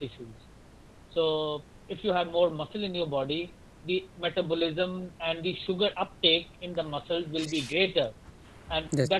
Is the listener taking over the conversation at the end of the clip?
No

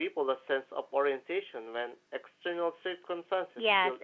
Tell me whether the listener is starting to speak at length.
Yes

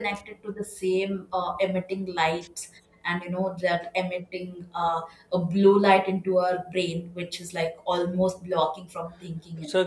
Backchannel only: No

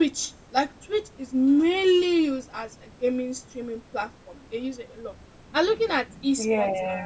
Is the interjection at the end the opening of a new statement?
No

